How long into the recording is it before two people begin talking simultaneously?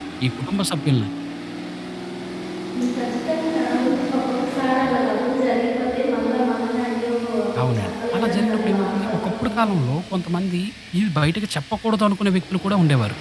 7.8 s

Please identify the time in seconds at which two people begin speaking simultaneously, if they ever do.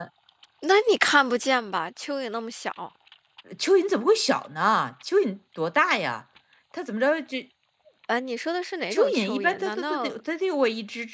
8.9 s

